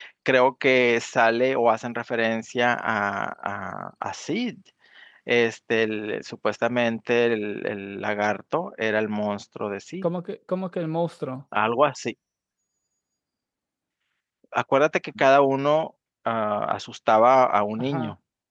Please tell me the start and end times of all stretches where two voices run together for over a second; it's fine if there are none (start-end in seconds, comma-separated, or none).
none